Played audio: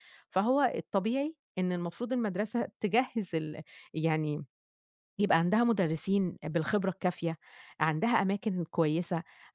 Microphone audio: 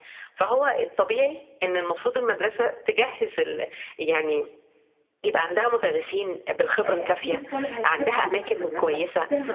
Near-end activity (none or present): present